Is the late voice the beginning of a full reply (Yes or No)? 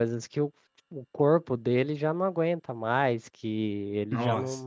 No